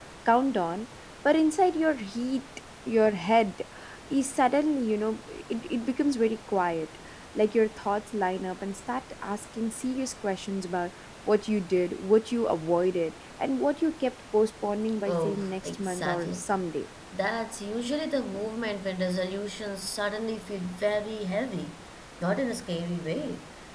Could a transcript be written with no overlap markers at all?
No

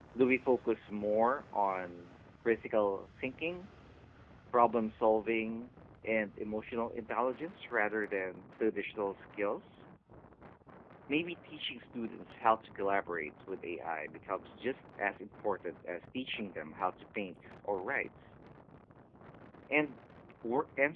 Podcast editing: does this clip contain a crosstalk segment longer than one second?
No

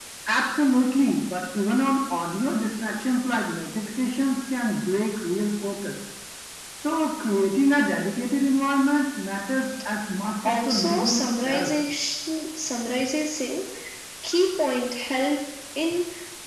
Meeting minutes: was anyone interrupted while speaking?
Yes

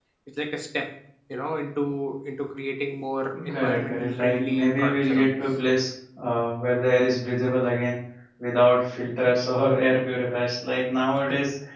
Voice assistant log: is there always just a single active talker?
No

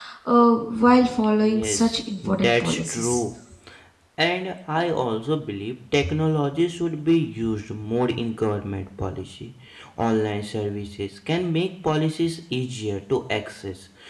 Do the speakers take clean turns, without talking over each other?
No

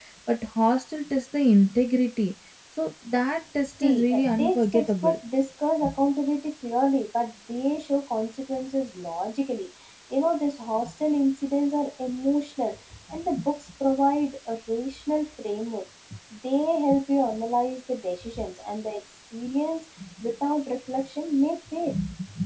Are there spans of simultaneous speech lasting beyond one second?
Yes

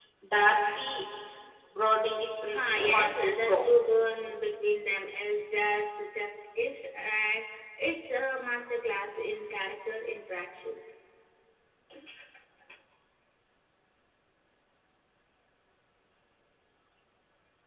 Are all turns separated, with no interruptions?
No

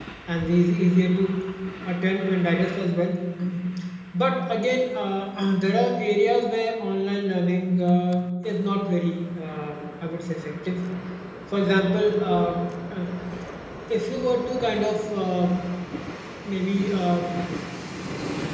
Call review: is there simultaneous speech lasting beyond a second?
No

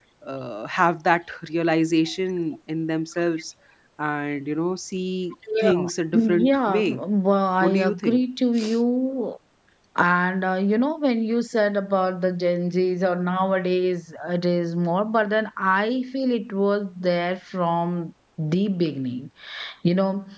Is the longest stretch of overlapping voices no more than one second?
No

